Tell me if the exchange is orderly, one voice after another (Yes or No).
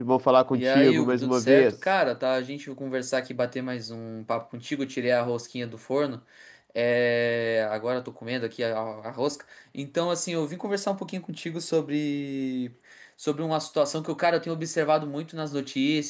No